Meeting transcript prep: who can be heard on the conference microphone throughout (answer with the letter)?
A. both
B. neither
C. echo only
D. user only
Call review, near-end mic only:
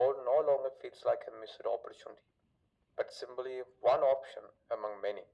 C